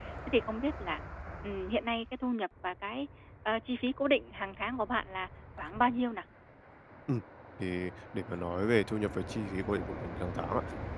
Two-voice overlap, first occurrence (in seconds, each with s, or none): none